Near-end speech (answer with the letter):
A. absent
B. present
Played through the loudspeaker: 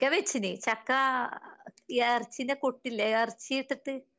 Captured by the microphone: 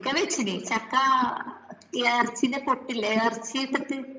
A